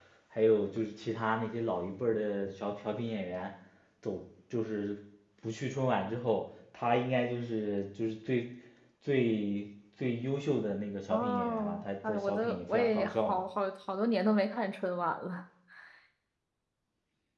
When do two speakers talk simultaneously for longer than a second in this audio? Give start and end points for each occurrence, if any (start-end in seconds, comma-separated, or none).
11.1-13.4